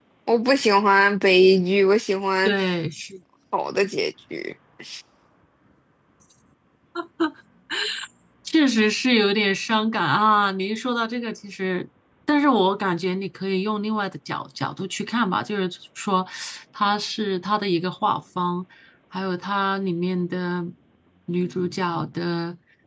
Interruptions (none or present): none